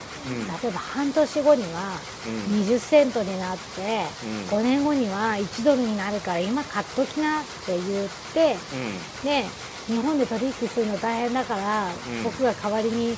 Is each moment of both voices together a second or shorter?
Yes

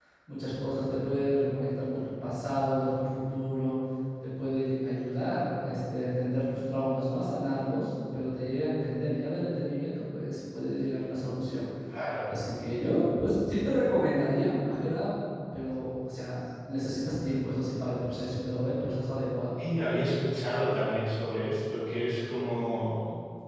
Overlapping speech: No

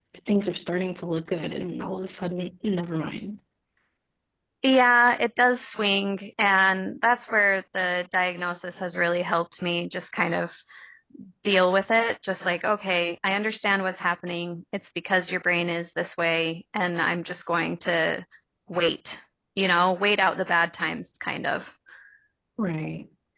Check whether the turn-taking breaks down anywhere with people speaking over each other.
No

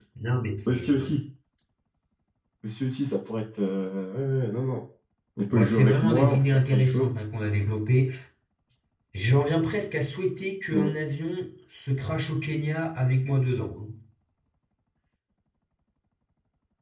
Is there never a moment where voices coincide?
No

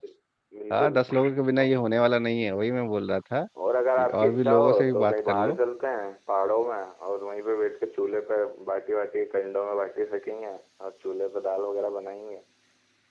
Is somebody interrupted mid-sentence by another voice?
Yes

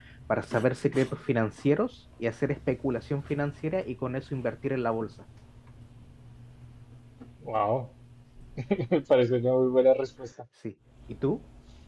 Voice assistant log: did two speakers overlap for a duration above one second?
No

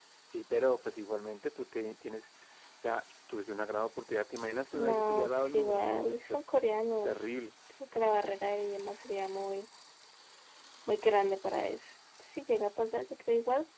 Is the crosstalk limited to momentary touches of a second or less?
No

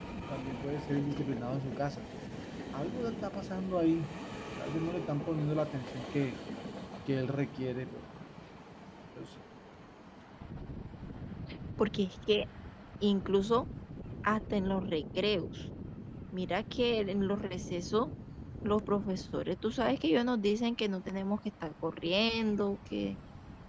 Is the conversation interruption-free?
Yes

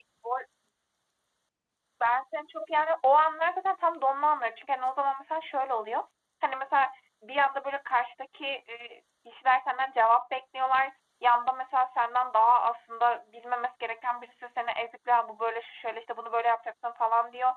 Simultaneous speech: No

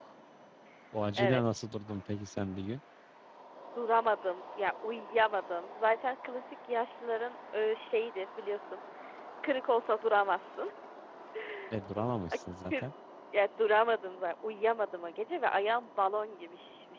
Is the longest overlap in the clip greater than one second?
No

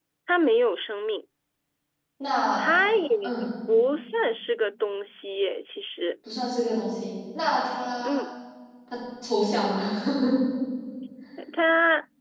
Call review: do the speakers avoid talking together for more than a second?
Yes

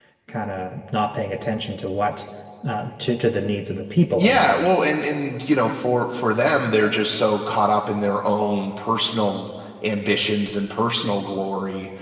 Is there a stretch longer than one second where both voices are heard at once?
No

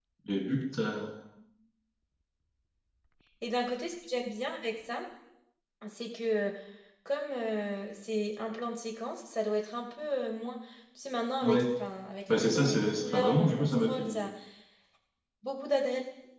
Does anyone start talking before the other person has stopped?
Yes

